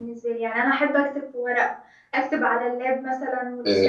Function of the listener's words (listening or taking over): taking over